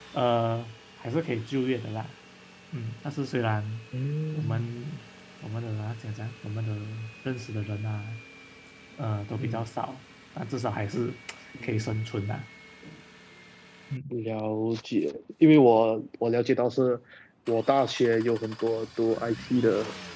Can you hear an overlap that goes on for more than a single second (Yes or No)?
No